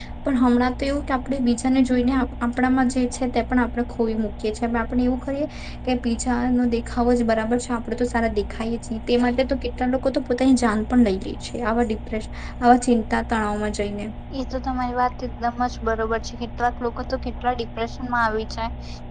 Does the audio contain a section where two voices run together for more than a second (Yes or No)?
No